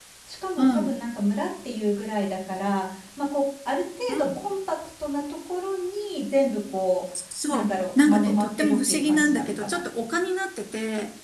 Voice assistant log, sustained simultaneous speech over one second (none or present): present